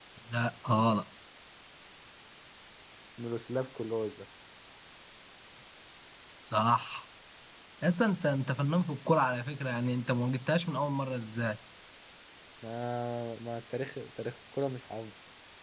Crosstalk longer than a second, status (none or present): none